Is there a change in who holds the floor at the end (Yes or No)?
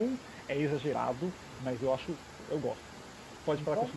No